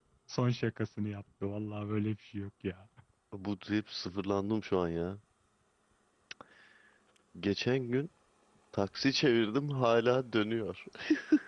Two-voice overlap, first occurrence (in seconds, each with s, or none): none